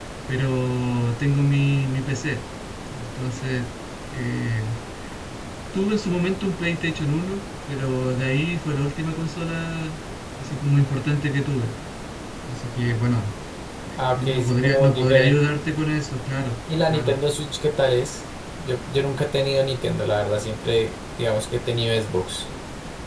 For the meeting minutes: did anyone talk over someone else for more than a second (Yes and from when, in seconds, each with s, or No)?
Yes, from 14.0 s